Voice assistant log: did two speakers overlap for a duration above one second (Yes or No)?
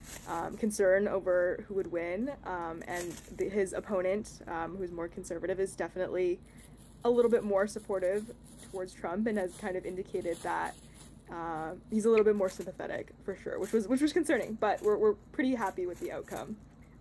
No